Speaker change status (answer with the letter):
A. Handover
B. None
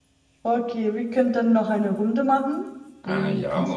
A